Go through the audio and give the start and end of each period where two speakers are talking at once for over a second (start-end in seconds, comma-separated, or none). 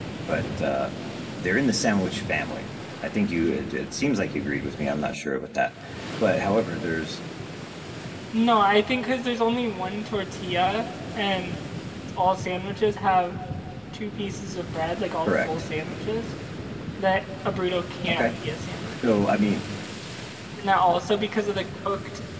none